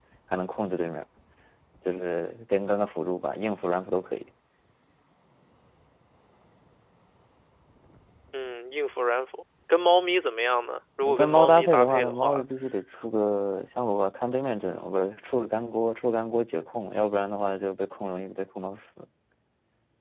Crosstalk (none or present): present